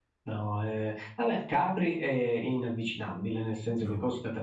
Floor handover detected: No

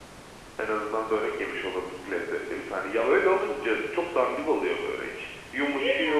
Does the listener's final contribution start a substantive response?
No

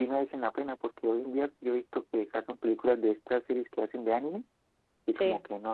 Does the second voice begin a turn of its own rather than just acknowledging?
No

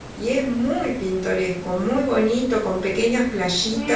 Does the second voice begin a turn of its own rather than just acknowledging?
Yes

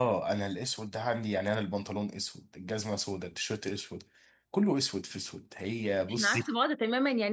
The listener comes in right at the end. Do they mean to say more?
Yes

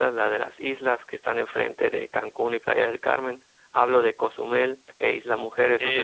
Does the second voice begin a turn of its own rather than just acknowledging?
Yes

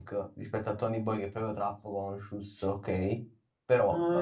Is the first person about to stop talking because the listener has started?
Yes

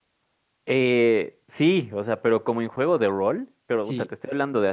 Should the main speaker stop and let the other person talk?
No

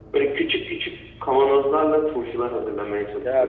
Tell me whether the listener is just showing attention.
No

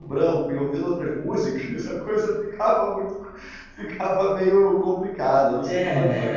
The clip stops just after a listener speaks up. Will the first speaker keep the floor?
No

